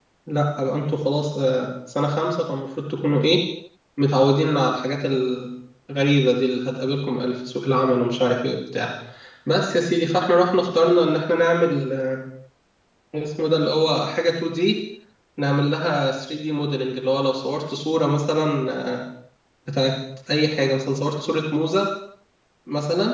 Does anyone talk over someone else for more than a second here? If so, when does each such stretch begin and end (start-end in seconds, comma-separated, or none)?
none